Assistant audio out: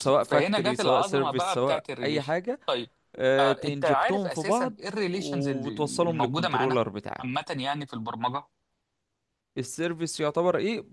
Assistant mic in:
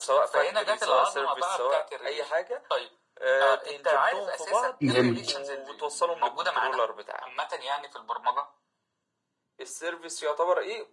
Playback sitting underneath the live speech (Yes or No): Yes